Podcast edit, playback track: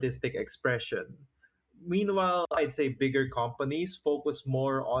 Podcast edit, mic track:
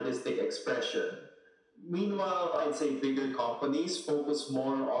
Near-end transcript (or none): none